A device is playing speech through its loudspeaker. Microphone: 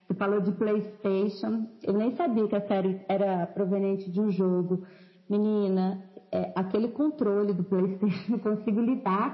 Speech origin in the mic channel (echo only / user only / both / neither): echo only